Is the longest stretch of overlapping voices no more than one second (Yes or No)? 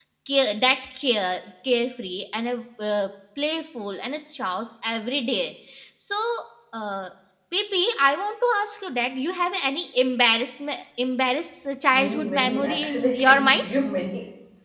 No